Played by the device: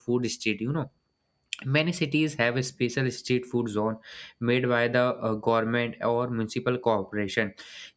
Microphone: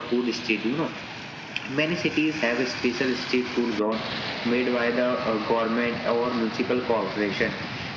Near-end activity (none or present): none